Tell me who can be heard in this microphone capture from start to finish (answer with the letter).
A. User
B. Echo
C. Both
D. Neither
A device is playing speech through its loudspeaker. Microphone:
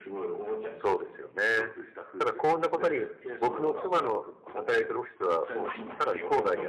C